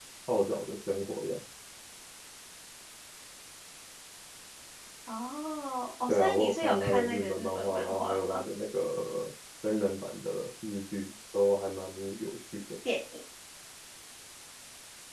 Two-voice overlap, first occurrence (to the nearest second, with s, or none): 6 s